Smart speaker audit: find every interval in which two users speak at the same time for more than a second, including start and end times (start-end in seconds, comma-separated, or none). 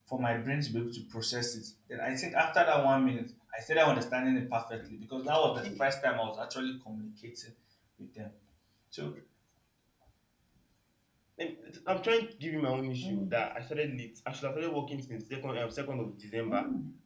none